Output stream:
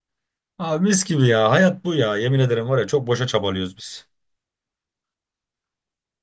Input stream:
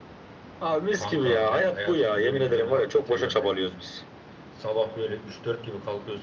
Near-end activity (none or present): present